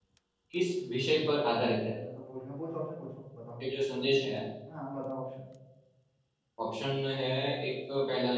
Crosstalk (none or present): none